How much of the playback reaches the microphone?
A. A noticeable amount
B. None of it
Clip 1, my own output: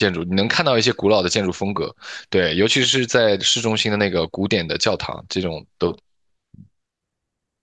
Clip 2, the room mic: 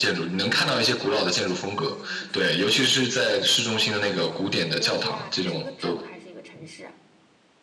A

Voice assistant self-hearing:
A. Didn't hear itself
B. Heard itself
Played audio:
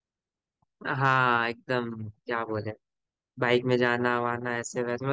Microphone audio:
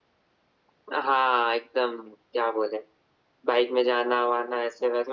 B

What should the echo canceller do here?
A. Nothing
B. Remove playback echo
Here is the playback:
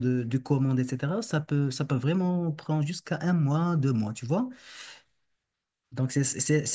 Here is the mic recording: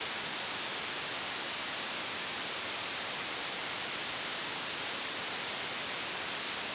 A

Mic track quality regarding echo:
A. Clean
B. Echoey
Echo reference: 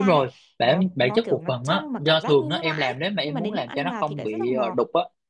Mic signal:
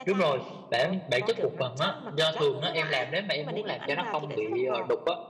B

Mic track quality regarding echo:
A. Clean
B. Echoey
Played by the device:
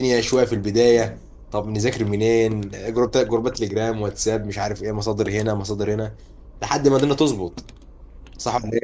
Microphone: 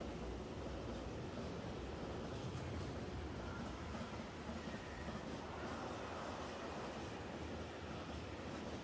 A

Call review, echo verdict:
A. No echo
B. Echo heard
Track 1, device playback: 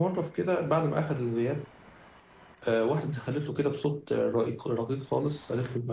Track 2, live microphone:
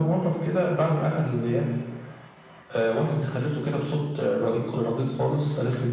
B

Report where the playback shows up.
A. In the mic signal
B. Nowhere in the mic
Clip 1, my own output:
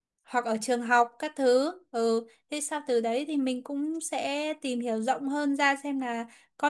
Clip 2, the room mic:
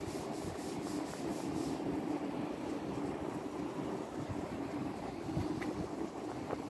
B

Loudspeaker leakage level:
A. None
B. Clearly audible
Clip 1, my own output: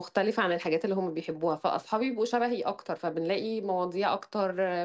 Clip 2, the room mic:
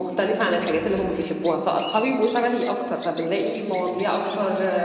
B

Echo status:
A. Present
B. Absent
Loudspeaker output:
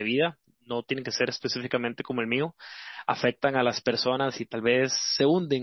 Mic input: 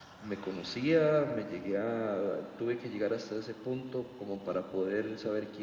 B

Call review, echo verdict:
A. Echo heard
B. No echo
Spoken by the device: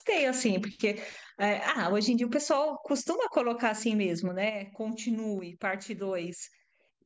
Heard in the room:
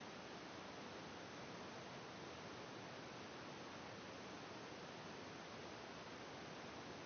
B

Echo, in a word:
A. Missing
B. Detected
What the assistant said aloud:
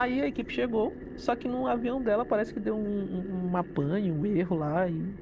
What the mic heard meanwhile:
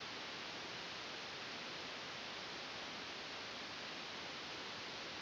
A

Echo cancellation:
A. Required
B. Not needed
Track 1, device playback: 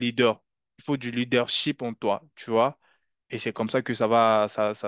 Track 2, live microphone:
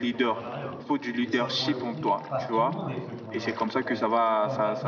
A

